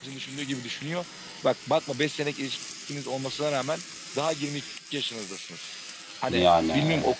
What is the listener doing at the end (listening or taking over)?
listening